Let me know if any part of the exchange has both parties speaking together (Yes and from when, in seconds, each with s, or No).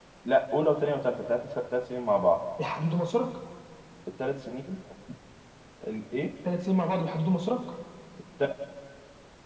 No